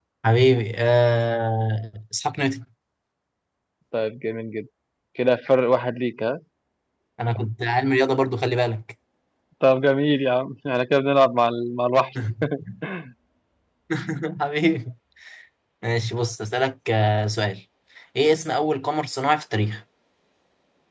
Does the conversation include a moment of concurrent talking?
No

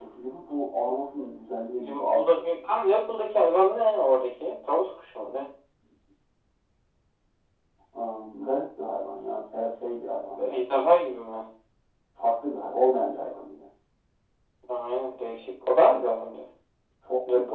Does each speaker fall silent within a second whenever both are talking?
Yes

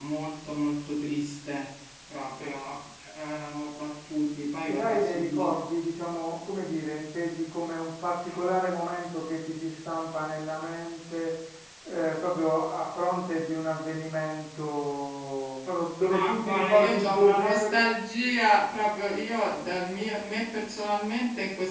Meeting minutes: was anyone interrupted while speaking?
Yes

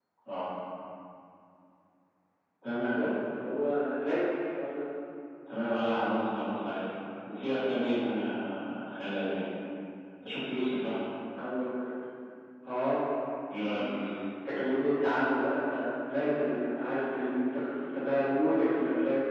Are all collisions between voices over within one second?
Yes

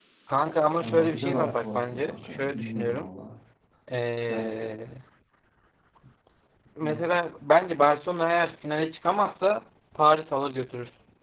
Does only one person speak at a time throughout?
No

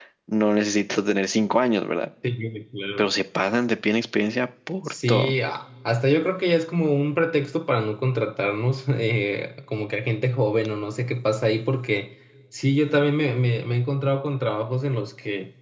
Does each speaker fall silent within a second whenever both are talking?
Yes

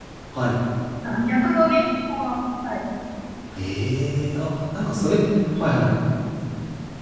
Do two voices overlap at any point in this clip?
No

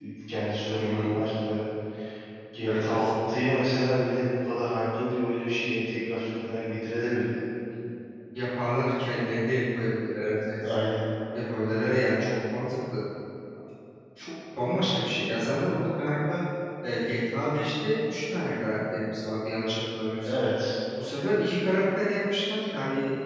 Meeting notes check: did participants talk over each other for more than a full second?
No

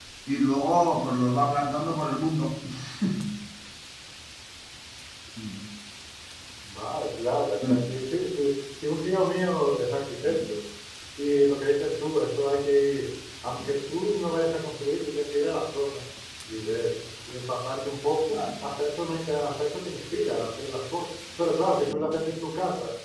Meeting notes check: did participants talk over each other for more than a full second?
No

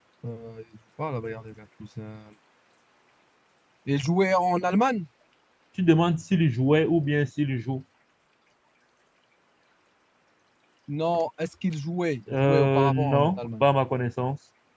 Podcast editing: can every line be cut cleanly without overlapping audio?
No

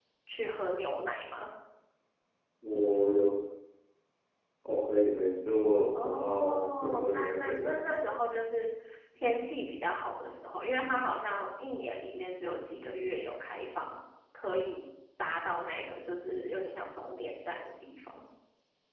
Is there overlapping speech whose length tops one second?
Yes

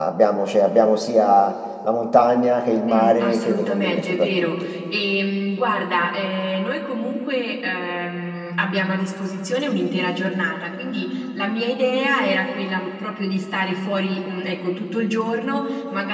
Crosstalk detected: Yes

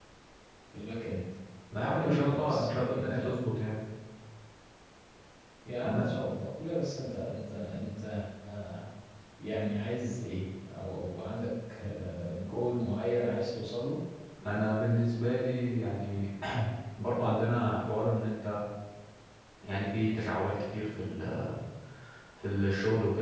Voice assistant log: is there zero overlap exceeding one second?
No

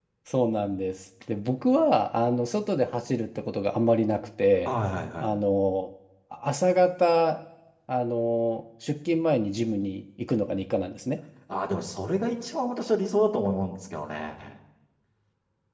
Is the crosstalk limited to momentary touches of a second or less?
Yes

